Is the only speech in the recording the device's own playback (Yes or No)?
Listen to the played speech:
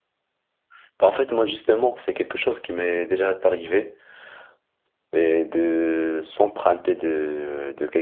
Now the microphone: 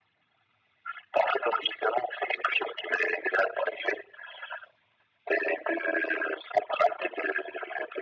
Yes